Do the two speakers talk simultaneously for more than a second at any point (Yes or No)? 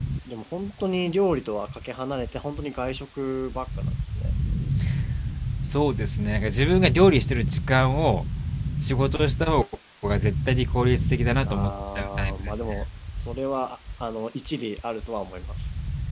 Yes